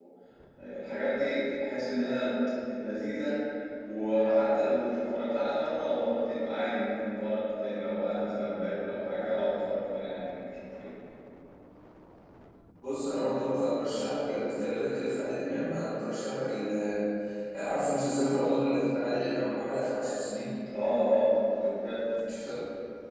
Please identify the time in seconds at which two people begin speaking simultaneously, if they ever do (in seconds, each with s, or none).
none